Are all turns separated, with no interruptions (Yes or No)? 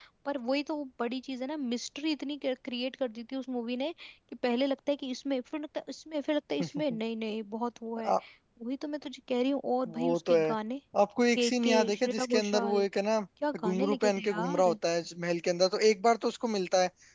No